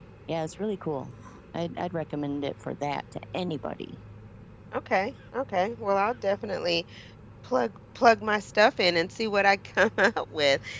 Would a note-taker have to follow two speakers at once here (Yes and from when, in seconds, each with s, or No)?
No